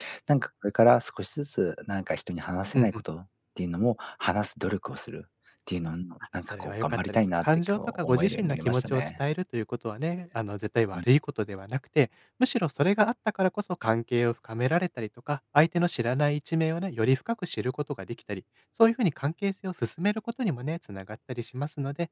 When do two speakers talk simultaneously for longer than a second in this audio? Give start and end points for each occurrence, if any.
6.5-9.1

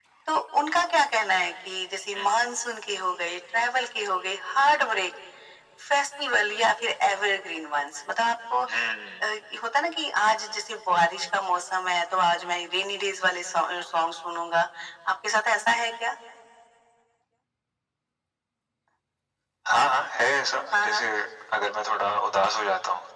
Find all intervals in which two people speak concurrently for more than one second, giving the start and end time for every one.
none

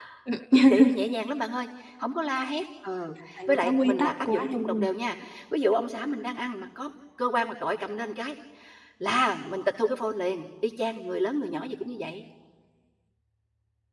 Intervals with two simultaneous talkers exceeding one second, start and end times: 3.5-4.8

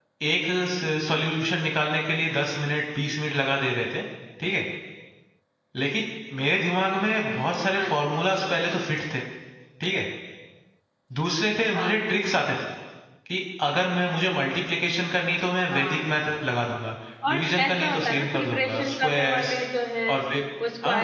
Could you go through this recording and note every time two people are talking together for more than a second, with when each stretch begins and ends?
17.3-19.6

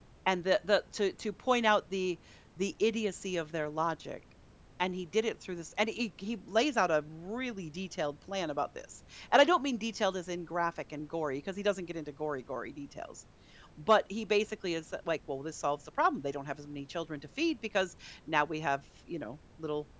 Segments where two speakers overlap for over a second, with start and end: none

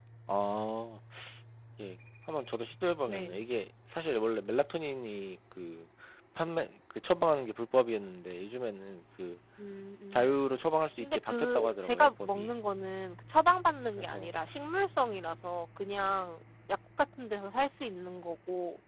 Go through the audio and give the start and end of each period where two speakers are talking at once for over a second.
11.0-12.5

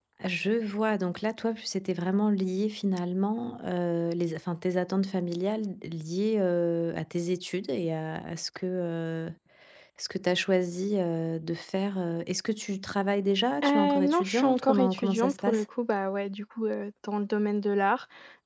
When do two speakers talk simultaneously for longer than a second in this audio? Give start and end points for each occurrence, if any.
13.6-15.6

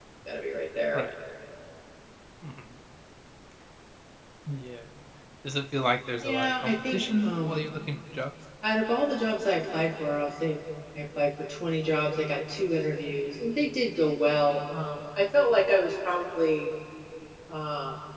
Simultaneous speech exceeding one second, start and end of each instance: 6.2-7.7

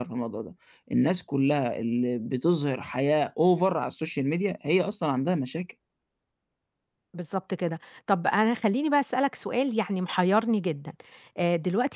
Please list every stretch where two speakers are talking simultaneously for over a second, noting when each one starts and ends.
none

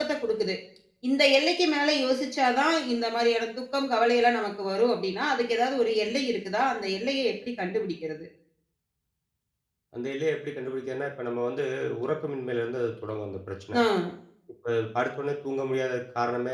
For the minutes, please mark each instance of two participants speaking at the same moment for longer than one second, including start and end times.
none

